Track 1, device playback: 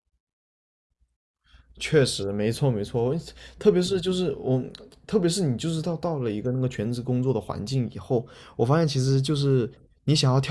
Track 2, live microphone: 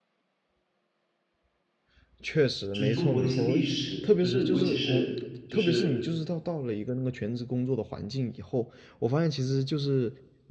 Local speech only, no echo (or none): 就是中国那些历史，就是尤其是就是